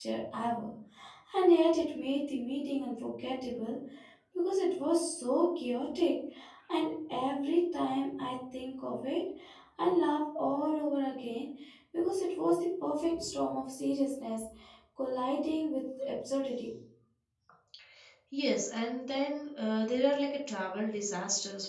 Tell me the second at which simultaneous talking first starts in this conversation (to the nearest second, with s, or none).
none